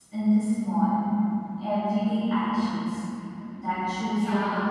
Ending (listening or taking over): taking over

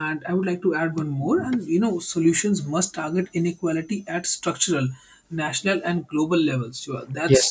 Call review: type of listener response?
listening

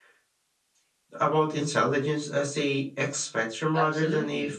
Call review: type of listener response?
taking over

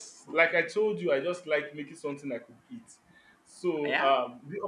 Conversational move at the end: listening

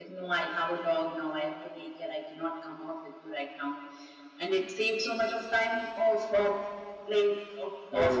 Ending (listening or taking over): taking over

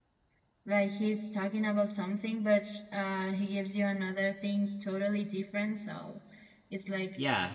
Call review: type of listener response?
listening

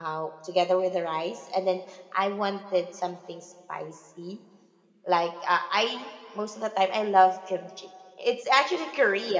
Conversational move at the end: listening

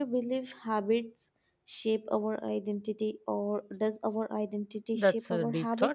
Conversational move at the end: taking over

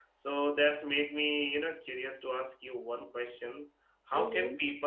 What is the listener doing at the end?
listening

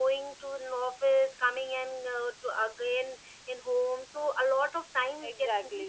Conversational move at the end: taking over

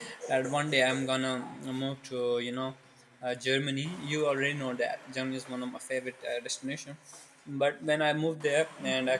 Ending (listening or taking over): listening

